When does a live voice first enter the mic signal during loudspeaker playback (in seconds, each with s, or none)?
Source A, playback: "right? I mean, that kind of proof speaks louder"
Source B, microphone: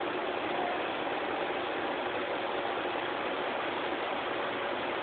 none